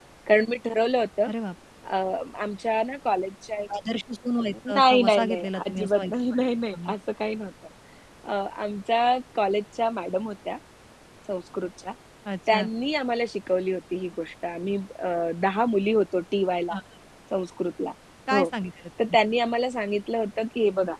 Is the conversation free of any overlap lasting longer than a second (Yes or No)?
No